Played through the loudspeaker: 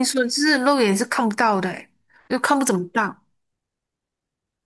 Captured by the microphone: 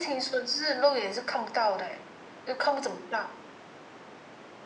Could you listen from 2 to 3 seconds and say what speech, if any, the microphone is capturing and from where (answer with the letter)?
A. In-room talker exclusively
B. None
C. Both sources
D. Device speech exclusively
D